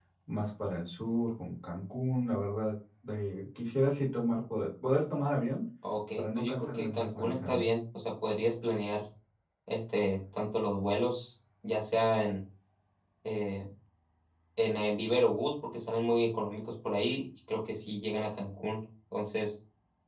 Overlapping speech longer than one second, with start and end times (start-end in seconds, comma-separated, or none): 6.2-7.7